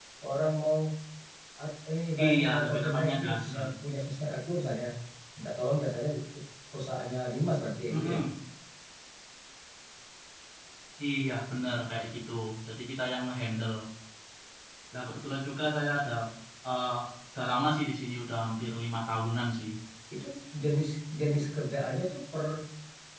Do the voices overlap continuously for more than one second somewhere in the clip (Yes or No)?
Yes